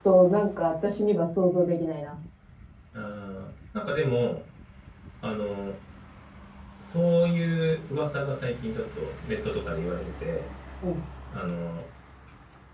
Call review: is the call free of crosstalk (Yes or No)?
Yes